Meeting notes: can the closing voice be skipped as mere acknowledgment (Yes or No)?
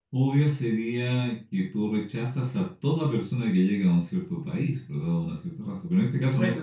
Yes